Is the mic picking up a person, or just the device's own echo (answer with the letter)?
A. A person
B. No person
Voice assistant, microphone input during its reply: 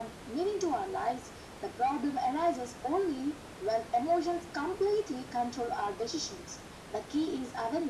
B